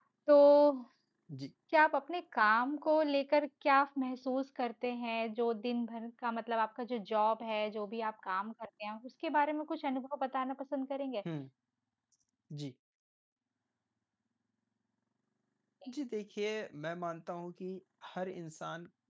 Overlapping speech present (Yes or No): No